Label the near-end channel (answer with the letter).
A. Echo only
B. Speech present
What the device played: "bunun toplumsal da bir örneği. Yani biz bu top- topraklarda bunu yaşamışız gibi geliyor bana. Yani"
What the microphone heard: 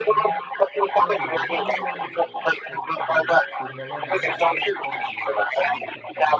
B